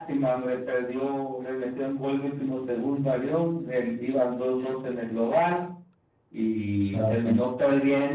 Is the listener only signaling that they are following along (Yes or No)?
Yes